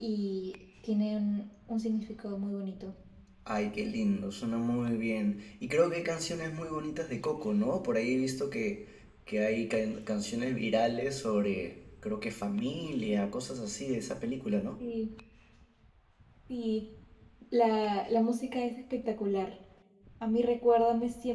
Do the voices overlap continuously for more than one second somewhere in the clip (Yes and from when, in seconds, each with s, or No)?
No